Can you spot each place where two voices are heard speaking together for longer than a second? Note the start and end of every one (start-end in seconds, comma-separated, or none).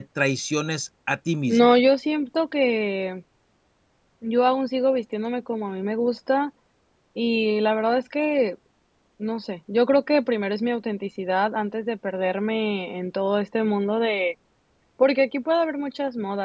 none